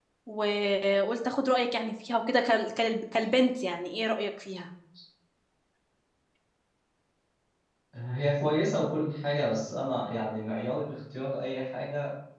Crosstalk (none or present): none